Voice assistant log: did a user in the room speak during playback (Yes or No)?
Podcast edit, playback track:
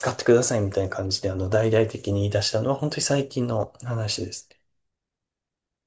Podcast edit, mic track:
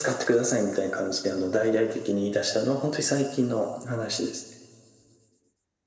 No